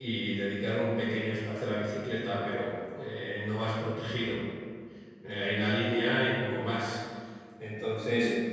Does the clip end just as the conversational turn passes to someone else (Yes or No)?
No